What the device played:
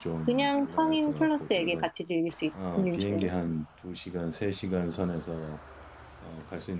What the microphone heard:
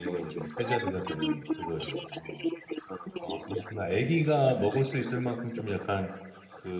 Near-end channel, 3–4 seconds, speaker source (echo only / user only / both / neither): both